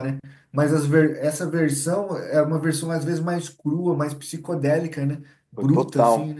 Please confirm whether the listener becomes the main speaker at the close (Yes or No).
Yes